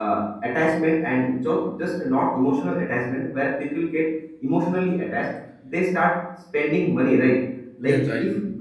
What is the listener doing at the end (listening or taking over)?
listening